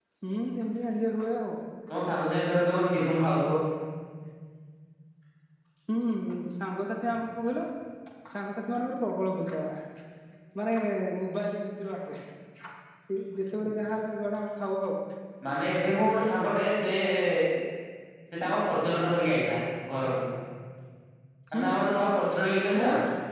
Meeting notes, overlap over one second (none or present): none